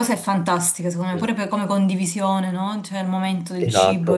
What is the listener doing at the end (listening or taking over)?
taking over